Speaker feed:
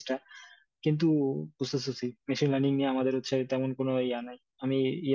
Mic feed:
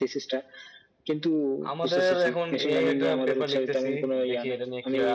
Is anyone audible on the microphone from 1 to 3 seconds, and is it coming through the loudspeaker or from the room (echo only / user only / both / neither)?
both